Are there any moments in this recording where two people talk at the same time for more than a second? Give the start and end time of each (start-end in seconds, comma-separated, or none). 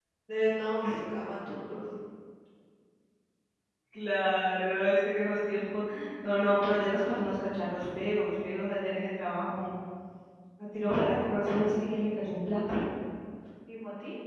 none